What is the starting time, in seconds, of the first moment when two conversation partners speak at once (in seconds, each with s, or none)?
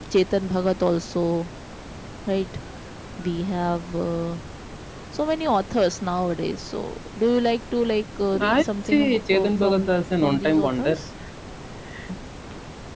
8.3 s